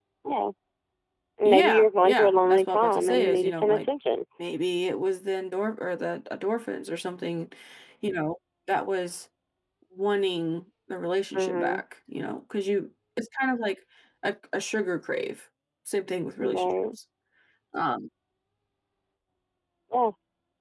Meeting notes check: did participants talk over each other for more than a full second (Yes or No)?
Yes